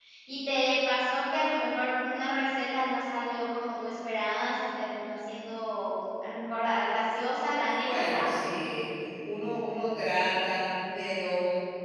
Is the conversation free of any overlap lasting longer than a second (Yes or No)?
Yes